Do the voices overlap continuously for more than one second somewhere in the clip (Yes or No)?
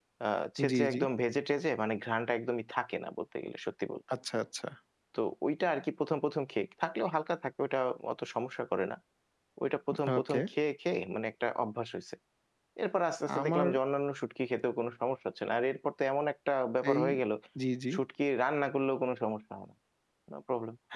No